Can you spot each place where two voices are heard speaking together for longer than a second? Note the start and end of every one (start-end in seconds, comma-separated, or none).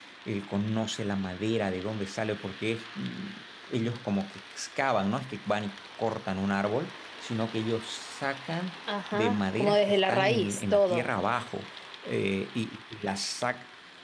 9.1-11.0